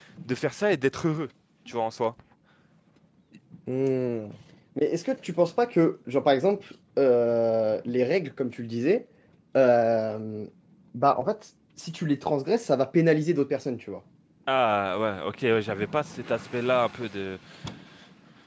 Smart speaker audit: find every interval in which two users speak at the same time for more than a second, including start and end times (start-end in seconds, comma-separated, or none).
none